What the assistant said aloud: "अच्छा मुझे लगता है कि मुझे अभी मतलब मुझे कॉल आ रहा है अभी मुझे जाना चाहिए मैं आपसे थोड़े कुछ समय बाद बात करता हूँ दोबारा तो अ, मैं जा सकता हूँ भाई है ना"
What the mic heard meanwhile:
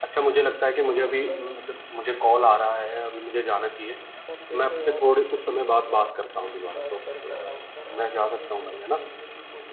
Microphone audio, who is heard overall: both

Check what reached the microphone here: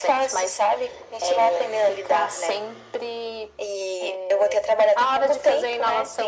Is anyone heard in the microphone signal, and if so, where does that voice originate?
echo only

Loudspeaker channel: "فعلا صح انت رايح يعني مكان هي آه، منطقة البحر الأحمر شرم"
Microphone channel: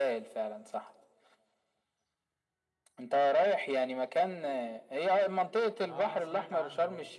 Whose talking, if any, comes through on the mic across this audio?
both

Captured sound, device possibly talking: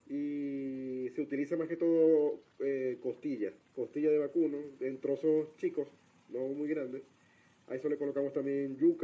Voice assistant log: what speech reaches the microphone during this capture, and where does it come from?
echo only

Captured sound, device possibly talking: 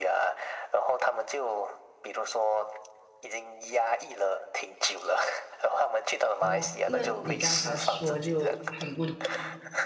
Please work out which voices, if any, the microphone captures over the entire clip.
both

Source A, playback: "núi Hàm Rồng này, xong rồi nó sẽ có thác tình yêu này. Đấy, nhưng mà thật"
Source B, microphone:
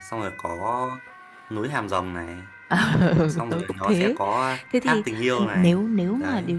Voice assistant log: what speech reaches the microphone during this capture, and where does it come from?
both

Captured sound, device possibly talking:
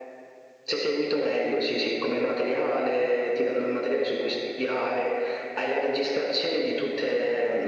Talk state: echo only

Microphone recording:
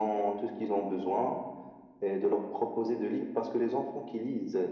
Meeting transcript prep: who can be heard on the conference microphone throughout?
echo only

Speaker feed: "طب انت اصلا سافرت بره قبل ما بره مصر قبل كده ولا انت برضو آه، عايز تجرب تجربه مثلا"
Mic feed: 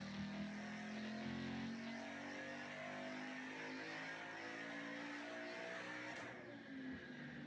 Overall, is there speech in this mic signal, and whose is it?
neither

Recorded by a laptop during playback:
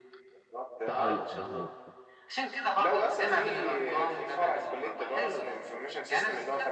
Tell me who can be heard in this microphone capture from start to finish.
both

